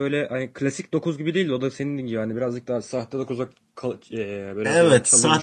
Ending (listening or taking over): taking over